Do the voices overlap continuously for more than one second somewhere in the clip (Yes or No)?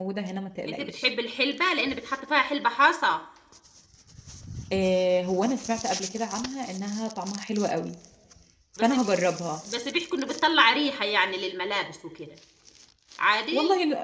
No